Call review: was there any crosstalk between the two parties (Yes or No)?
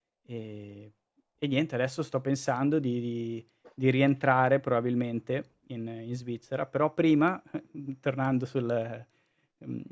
No